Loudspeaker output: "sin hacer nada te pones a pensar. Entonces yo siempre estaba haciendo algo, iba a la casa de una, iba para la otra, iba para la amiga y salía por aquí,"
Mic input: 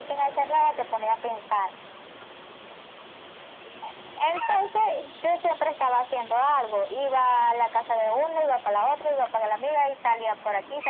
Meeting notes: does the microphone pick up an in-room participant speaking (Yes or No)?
No